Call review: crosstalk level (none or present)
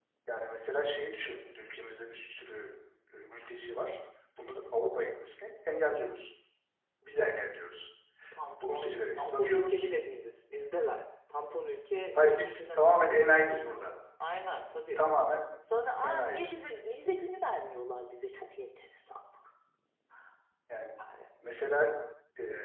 present